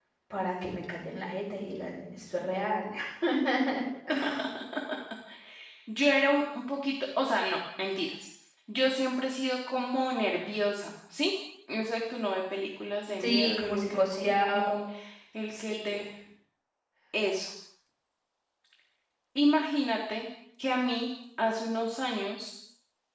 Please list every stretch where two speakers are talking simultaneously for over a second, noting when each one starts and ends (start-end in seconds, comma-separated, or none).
13.2-14.8